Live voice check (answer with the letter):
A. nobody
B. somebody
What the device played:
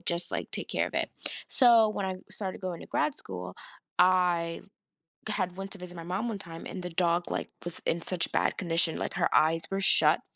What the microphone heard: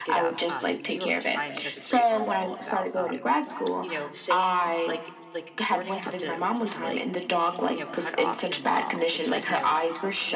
B